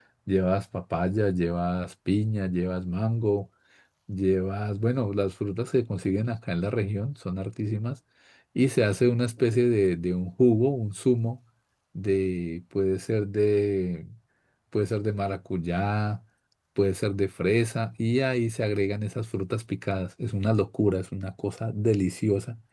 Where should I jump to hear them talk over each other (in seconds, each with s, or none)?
none